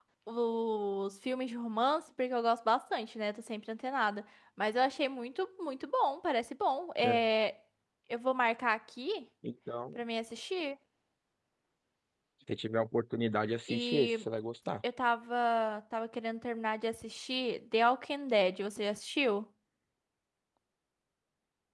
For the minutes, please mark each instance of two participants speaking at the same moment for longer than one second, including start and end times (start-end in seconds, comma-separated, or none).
none